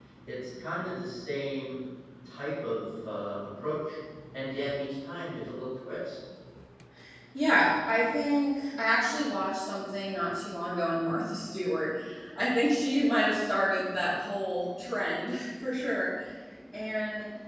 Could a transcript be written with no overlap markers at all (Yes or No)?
Yes